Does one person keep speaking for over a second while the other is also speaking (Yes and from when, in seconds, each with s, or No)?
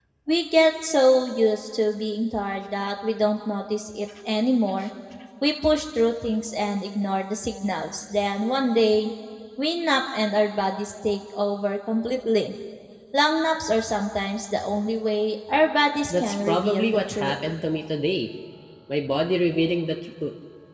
Yes, from 16.1 s